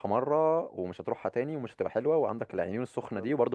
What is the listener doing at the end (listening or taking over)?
listening